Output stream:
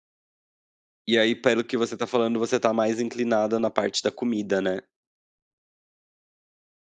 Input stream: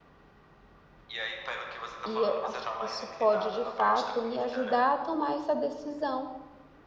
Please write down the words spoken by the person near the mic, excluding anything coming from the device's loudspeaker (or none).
E eu acho que isso pode de fato me ajudar a tomar essa decisão,